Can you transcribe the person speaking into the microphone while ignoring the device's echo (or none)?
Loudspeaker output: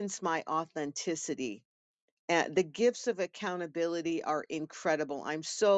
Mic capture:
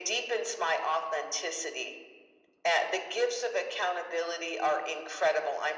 none